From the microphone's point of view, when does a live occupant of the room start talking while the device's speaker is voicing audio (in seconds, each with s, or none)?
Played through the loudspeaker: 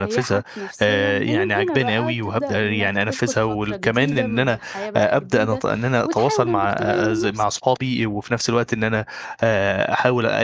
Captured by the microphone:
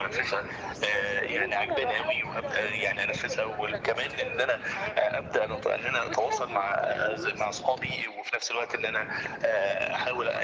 none